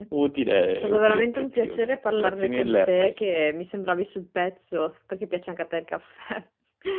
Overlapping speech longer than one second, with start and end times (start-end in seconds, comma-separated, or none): 0.8-3.2